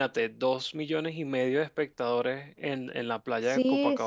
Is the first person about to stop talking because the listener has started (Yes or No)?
Yes